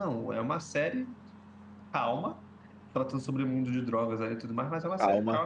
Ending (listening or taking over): taking over